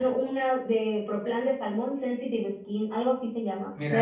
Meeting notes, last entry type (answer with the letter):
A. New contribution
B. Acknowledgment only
A